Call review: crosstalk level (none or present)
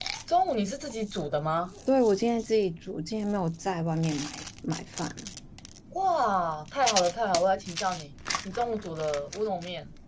none